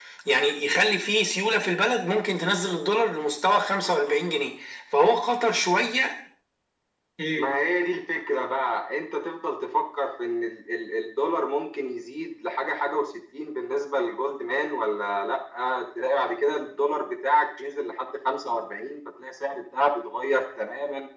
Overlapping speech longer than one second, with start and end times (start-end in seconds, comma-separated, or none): none